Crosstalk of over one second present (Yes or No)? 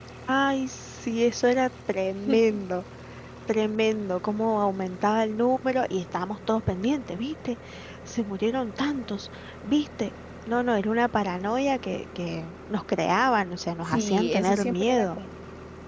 Yes